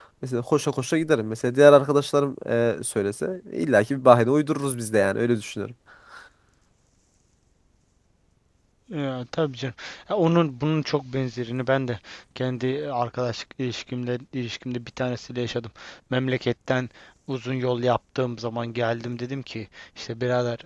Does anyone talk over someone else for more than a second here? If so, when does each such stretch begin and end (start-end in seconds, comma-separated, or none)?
none